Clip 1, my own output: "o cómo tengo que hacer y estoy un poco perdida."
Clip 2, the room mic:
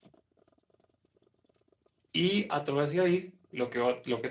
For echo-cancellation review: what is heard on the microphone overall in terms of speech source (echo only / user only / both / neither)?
user only